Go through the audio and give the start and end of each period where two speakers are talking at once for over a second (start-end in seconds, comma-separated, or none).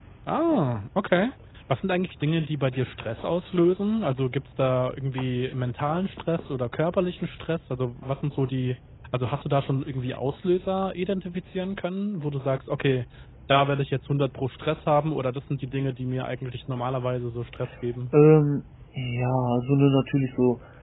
none